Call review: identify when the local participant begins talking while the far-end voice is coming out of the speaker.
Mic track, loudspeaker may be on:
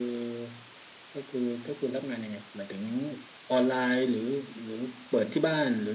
none

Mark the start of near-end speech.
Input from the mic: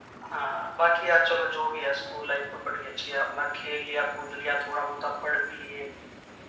none

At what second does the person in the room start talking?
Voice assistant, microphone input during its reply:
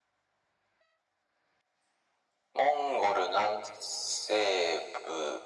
none

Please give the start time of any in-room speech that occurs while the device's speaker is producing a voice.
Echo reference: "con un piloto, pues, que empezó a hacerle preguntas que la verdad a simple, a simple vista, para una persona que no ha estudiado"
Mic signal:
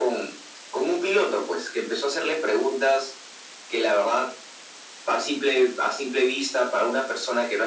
none

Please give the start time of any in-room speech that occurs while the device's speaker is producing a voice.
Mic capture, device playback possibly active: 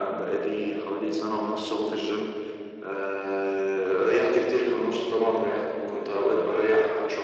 none

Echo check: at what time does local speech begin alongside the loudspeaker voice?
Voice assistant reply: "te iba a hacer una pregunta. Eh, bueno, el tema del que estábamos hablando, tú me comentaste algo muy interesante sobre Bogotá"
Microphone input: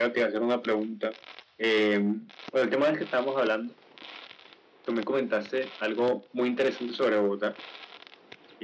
none

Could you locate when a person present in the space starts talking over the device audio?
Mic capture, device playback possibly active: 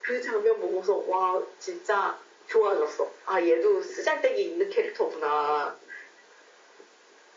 none

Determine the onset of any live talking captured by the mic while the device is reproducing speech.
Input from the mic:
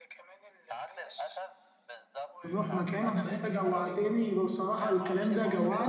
2 s

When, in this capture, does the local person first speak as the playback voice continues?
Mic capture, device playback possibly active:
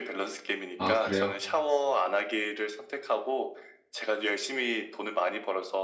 1 s

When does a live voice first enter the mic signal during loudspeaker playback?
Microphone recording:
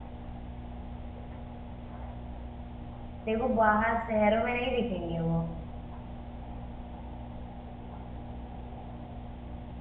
3 s

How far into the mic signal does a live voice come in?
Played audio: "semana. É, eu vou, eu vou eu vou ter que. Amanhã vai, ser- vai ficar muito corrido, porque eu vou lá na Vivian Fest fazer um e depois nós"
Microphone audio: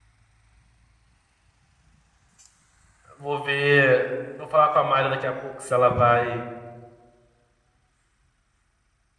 3 s

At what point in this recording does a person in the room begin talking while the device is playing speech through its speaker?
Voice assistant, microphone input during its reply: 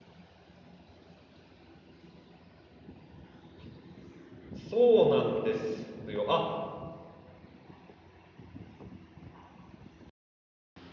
5 s

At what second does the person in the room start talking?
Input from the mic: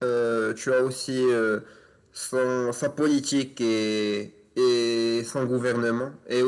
none

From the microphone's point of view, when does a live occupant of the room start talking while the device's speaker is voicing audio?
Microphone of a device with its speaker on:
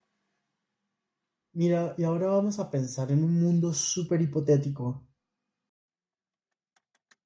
2 s

